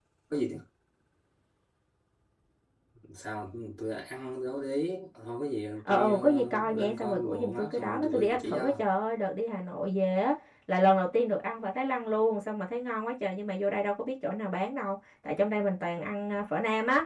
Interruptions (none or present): present